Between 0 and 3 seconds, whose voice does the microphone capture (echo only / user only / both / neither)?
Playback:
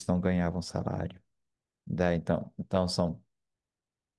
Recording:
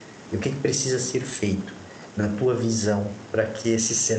user only